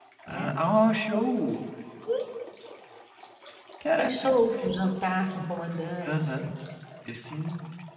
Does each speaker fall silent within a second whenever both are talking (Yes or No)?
Yes